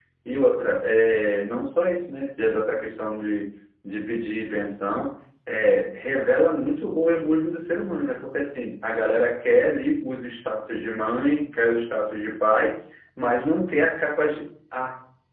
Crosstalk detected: No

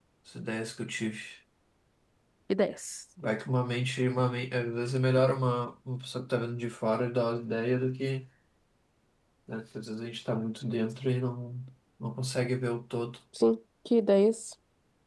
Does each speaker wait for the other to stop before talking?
Yes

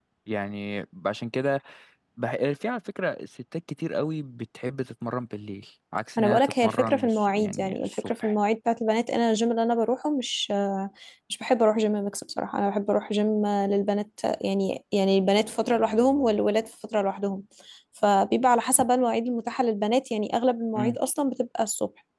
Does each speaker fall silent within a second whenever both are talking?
No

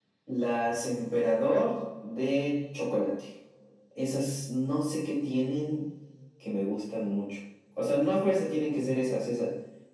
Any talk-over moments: No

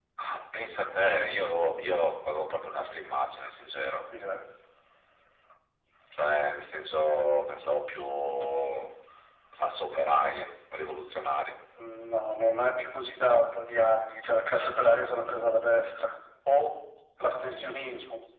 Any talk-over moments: No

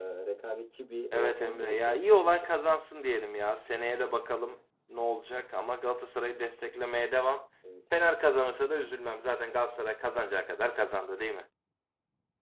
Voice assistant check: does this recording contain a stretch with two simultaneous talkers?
Yes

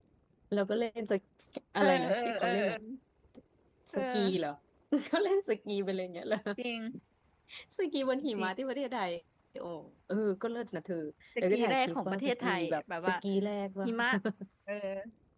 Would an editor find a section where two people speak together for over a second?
Yes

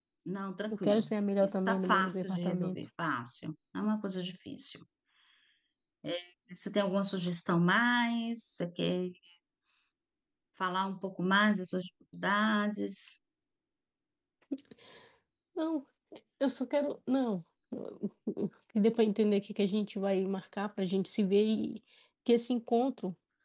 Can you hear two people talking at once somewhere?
Yes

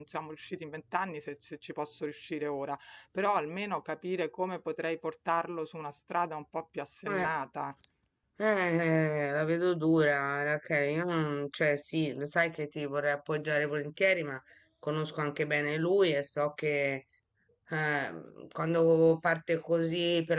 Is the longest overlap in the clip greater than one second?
No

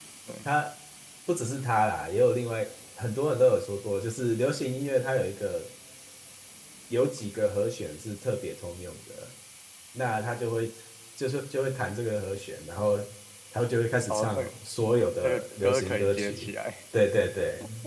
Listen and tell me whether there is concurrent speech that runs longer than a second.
Yes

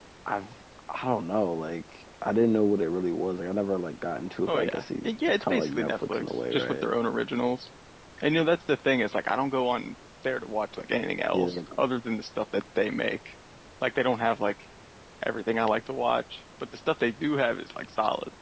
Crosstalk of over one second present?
Yes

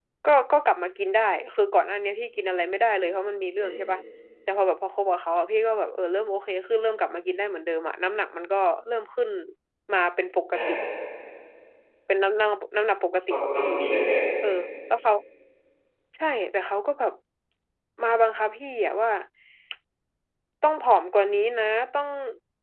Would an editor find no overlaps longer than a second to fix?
Yes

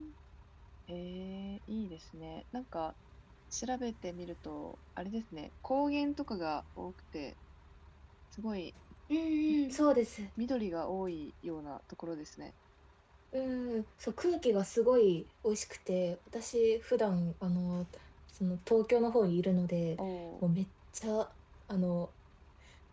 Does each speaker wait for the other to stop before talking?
Yes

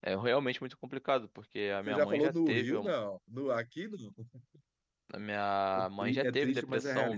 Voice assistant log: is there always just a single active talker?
No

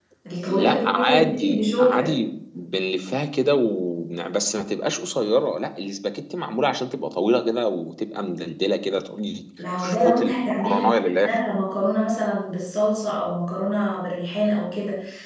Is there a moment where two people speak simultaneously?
Yes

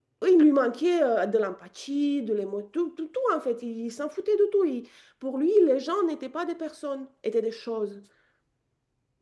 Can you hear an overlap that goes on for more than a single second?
No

